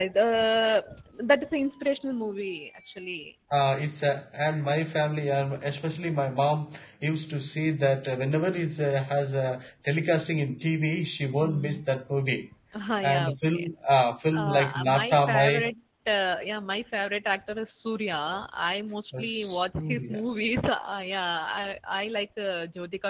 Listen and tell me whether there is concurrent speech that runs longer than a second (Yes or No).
Yes